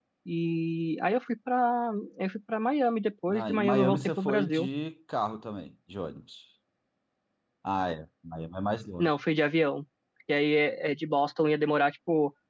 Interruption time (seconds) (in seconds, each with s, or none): 3.3 s